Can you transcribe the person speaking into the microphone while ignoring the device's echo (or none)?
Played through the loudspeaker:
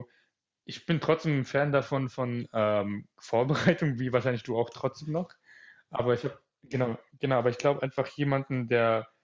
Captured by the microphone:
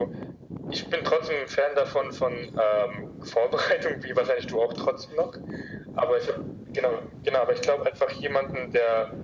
none